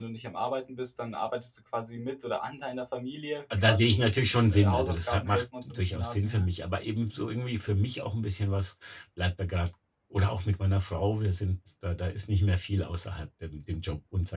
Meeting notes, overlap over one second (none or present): present